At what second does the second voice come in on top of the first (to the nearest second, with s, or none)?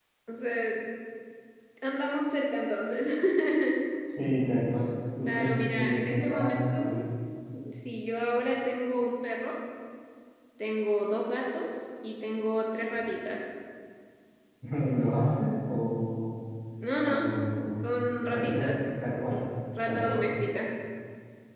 5 s